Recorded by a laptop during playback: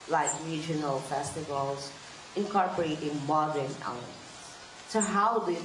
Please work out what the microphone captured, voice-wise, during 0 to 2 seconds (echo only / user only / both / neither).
user only